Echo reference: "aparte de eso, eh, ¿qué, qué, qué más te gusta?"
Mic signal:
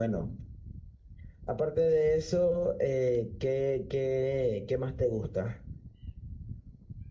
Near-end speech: none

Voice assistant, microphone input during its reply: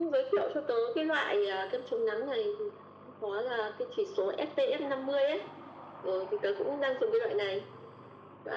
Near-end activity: none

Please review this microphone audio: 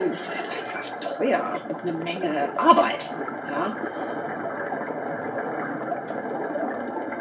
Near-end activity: none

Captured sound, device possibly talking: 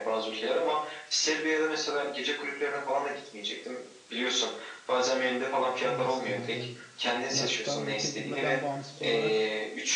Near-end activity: present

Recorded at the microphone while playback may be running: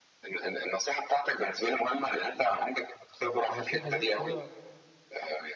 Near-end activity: present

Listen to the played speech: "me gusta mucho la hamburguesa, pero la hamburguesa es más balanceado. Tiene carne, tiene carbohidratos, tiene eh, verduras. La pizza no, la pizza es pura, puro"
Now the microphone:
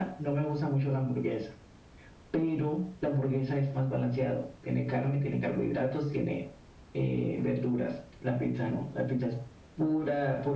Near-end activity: none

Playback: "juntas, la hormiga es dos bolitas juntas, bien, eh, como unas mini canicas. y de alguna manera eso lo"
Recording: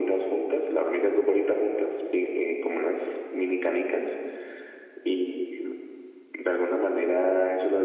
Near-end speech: none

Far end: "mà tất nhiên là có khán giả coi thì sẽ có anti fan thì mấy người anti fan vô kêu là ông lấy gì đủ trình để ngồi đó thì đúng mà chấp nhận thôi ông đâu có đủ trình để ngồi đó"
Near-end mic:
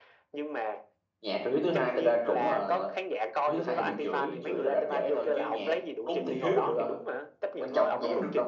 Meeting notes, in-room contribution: present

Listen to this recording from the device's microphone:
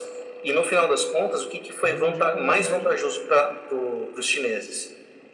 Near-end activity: present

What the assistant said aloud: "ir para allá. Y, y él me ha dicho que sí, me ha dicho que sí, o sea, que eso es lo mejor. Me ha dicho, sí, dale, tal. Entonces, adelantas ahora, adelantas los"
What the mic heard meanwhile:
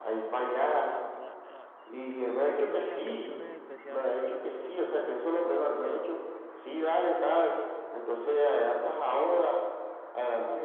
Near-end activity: present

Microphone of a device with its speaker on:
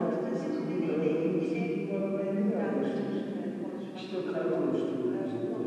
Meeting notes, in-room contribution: none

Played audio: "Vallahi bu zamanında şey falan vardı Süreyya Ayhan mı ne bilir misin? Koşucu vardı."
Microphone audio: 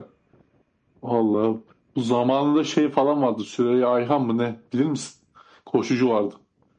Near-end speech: none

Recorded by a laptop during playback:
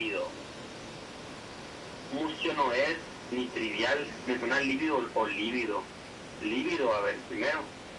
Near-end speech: none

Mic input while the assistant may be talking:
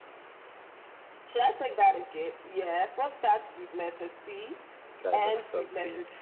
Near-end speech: present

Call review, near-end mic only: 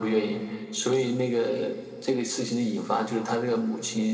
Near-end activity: none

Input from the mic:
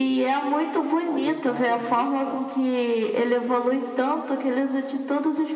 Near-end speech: present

